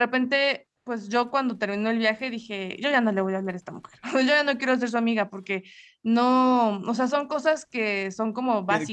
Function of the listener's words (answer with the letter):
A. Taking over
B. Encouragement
A